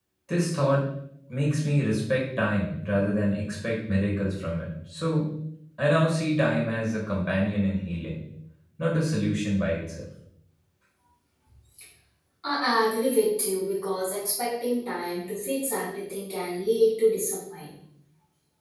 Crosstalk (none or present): none